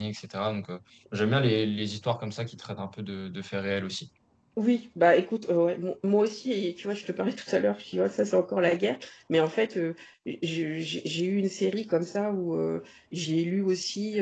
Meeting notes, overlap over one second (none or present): none